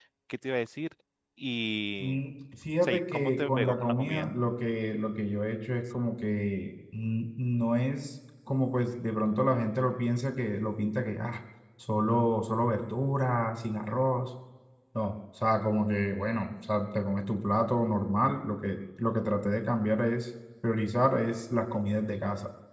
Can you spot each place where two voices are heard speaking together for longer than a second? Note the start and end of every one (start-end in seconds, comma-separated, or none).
2.8-4.3